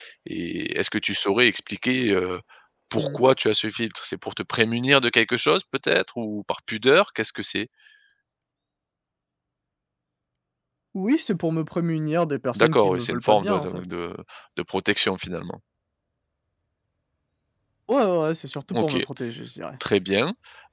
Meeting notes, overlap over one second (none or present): present